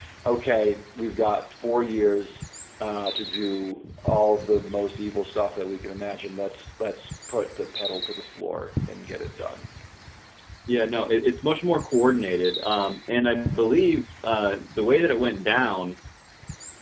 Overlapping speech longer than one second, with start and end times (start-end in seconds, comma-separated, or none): none